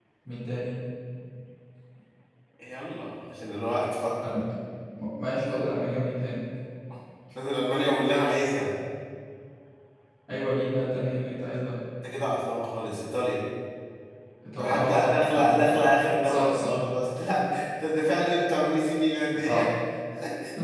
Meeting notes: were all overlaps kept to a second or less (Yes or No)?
No